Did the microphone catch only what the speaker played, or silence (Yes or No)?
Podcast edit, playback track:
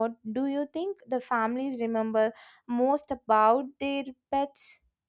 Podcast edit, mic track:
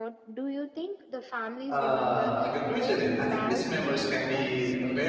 No